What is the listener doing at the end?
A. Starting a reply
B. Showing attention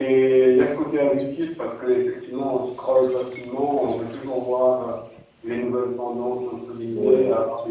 B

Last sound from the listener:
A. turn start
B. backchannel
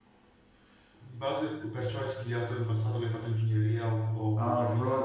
A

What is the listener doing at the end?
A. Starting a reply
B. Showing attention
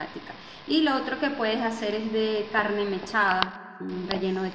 B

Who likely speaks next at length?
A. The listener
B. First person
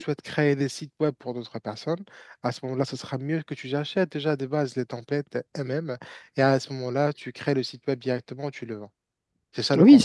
A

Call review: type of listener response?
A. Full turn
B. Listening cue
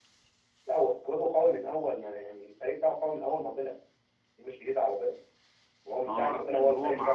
A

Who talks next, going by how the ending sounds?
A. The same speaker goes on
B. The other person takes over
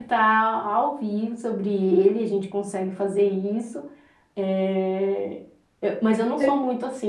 A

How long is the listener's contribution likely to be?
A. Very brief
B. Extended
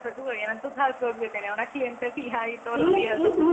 B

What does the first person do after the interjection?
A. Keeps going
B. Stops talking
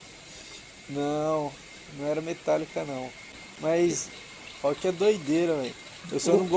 A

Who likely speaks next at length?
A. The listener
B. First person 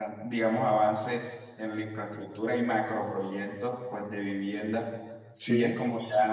B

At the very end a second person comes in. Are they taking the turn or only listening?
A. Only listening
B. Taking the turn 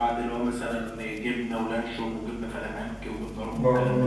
B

